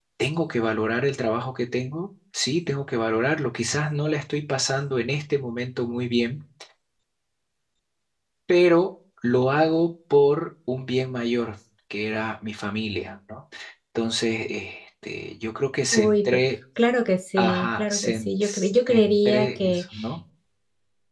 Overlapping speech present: Yes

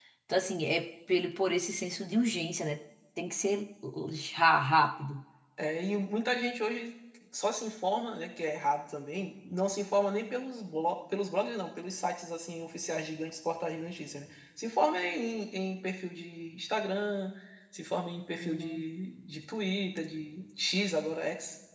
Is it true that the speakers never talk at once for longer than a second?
Yes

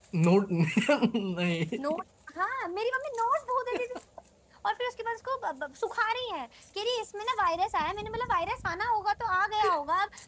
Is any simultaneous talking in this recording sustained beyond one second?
No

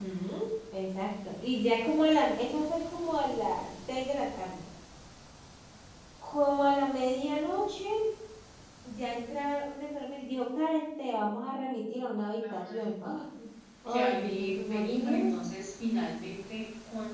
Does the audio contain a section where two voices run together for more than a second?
Yes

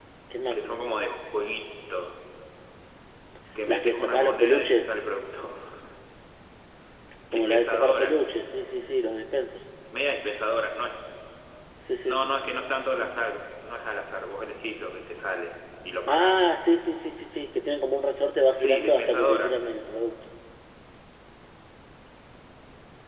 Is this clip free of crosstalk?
No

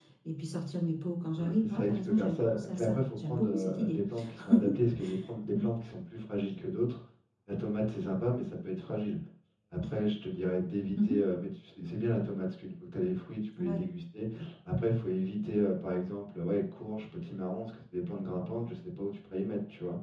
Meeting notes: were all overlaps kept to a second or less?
No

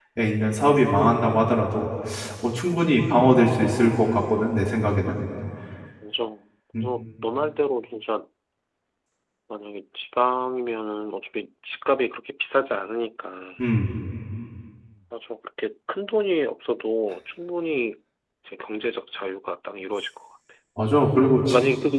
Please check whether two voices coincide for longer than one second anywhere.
No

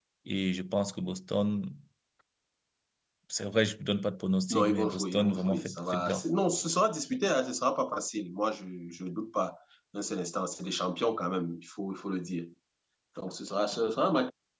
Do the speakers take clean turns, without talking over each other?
No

